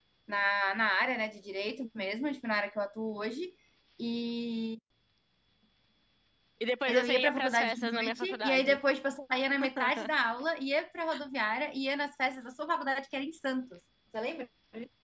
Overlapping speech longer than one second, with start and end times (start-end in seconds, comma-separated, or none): 6.9-8.8